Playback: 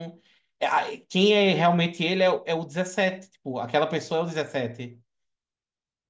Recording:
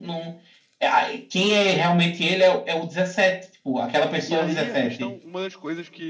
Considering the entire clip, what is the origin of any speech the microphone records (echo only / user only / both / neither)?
both